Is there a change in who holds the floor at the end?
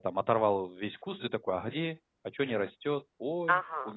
Yes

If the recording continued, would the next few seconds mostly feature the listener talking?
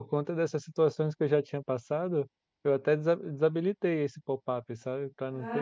Yes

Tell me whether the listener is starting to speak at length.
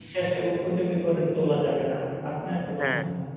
Yes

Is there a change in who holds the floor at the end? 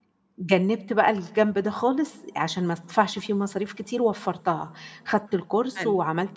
No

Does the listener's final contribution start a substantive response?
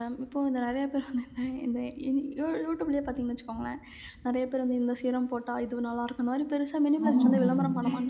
Yes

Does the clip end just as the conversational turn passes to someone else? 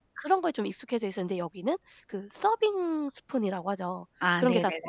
No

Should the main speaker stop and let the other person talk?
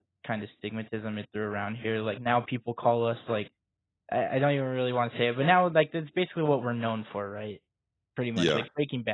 No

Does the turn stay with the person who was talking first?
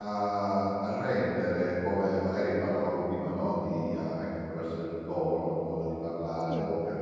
Yes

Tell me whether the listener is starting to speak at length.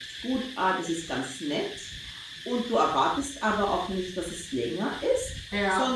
No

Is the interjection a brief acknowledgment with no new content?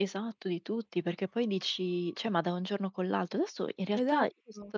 Yes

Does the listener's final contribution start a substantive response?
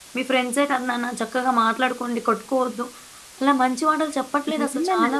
Yes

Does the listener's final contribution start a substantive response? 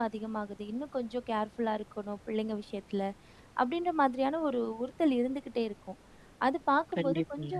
No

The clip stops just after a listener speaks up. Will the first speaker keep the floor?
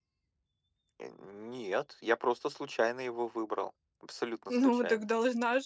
No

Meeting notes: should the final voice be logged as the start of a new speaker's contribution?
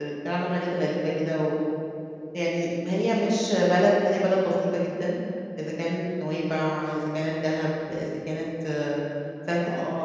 Yes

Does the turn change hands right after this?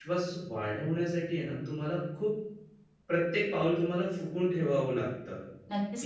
Yes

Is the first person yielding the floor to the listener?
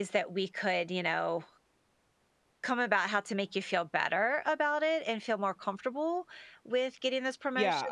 Yes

